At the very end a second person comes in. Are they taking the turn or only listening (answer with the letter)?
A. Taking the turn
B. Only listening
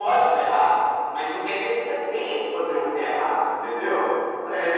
B